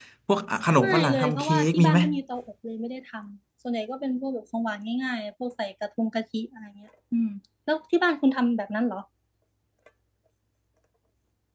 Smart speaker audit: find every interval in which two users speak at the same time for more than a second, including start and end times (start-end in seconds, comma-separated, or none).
0.8-2.0